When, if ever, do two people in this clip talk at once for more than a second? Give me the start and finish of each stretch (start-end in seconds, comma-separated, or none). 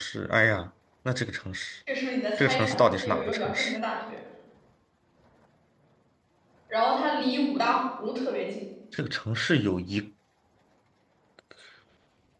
2.4-3.8